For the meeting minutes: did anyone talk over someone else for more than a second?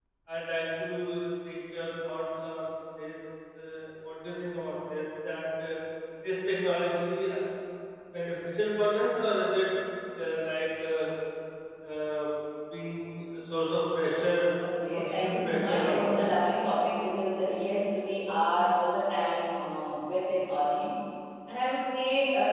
Yes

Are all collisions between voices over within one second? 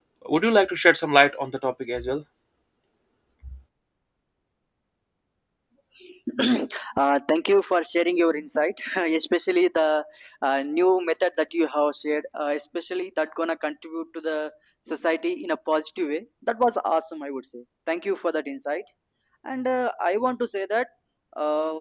Yes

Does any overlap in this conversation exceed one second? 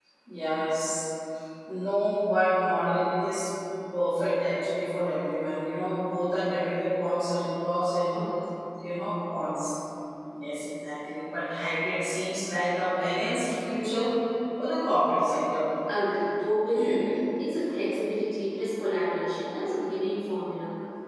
No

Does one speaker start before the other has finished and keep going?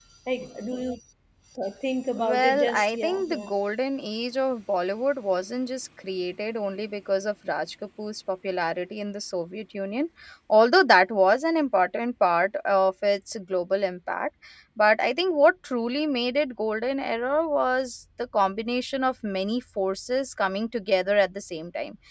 Yes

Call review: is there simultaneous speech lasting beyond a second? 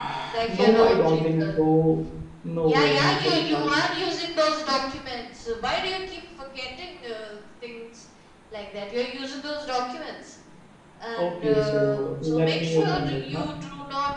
Yes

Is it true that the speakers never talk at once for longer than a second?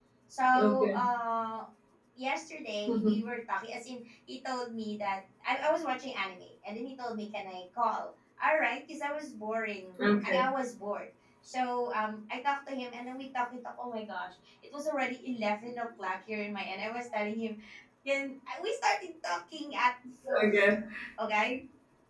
Yes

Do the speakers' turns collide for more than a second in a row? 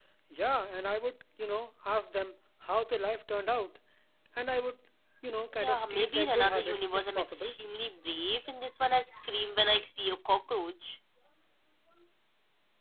Yes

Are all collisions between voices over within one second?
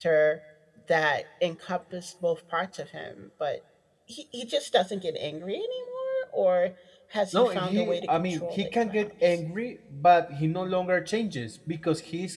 No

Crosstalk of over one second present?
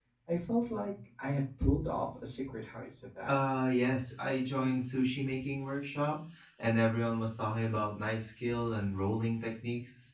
No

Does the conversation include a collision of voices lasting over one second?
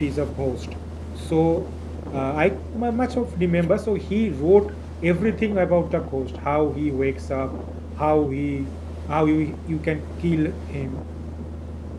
No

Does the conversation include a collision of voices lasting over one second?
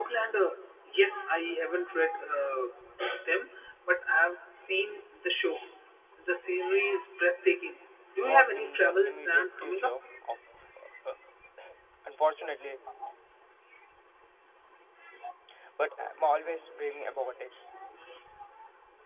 Yes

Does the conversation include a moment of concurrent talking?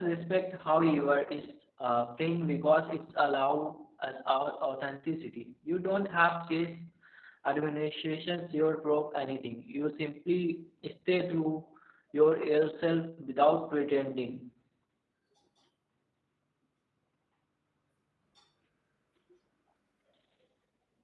No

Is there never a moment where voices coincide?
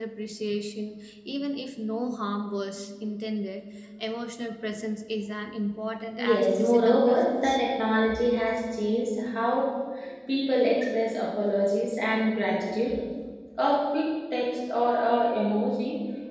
No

